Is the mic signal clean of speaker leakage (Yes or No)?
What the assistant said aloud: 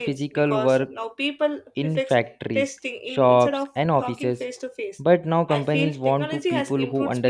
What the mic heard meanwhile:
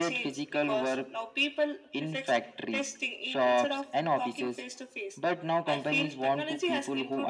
No